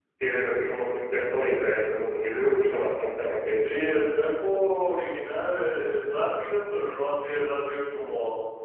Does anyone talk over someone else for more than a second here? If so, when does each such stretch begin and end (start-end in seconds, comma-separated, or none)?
none